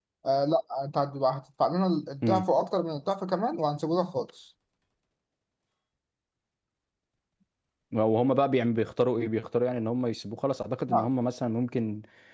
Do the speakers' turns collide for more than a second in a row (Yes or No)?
No